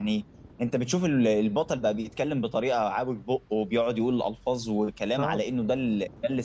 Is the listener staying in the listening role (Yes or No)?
Yes